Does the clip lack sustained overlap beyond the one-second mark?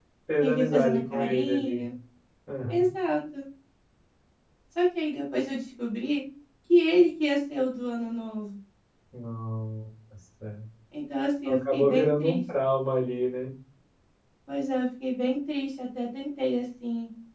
No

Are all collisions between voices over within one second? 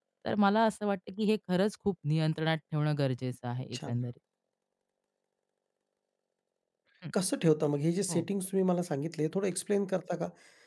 Yes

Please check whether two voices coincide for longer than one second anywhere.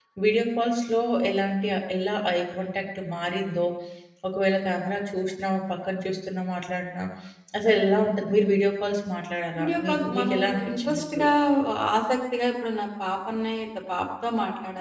Yes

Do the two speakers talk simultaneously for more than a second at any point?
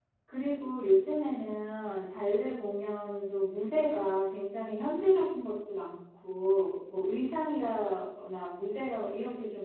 No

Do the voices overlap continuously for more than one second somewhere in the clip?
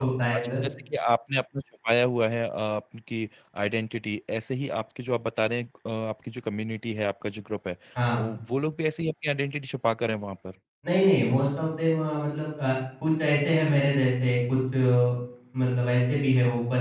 No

